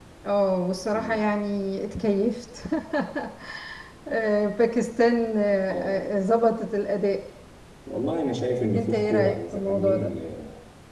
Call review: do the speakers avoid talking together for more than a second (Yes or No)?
No